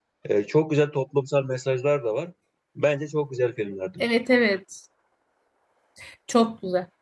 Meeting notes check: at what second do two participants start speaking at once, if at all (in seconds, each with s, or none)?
none